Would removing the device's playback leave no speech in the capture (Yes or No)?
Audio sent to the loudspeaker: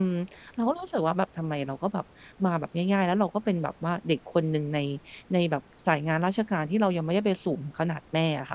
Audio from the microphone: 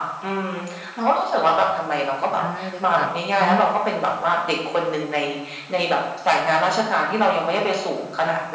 No